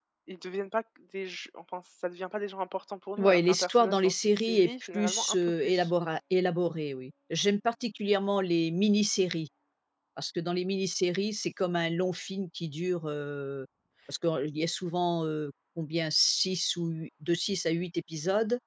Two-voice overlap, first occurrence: 3.2 s

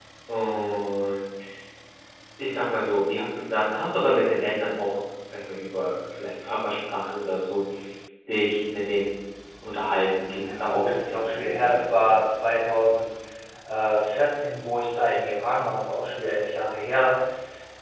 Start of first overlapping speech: 10.5 s

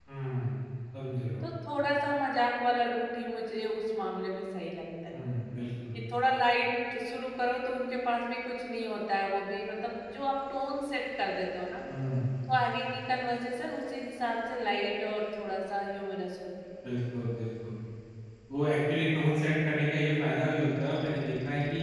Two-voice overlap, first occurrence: none

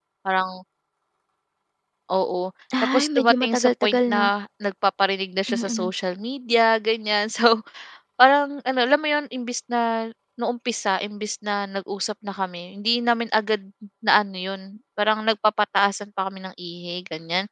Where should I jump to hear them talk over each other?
2.8 s

